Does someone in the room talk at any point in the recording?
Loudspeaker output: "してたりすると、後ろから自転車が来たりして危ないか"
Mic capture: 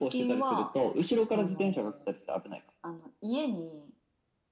Yes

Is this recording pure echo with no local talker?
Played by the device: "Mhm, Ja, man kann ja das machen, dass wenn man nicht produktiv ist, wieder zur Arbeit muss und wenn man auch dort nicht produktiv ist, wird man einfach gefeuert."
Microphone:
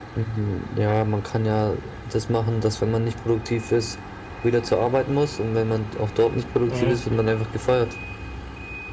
No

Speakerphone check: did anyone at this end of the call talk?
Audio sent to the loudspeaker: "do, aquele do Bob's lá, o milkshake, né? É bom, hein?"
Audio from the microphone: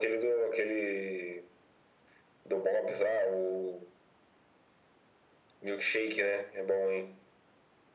No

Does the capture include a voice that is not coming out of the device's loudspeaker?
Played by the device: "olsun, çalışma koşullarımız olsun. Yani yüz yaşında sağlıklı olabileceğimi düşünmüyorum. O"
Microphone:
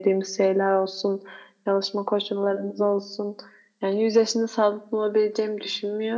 No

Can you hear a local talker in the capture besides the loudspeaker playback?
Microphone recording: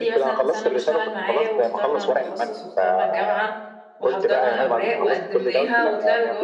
Yes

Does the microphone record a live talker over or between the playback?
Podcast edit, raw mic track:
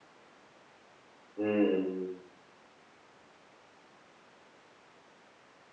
Yes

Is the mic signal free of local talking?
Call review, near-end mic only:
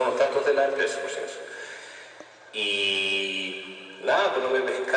Yes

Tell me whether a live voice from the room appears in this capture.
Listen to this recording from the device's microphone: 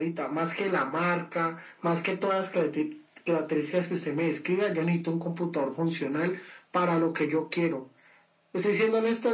No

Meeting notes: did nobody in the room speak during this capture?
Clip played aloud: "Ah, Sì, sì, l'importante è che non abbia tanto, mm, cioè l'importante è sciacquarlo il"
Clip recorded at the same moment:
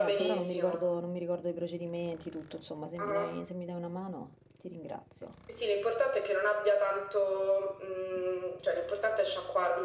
No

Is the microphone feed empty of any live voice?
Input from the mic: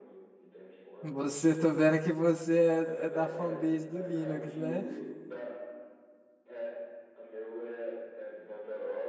No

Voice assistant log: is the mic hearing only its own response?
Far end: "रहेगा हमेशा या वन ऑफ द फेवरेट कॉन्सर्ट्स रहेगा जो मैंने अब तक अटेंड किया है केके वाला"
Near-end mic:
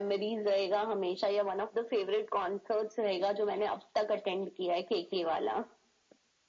Yes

